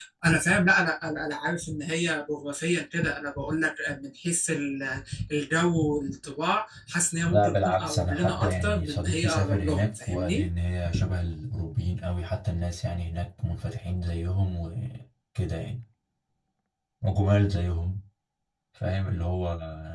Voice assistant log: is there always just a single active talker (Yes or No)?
No